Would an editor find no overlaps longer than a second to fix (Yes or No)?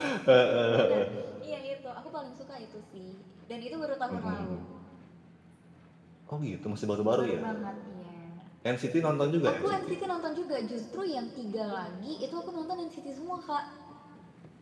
Yes